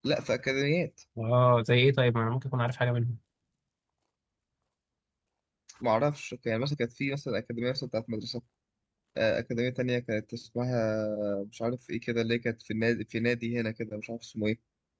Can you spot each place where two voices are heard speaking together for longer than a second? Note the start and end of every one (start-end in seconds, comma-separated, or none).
none